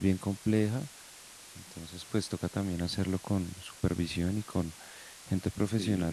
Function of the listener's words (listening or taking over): listening